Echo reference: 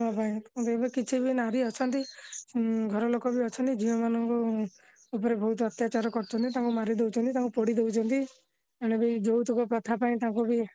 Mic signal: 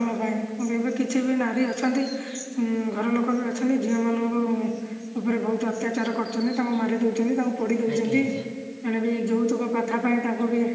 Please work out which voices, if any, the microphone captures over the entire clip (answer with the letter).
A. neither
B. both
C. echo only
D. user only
B